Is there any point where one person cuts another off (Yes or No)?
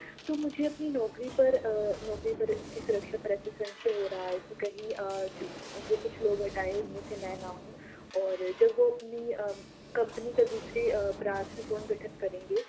No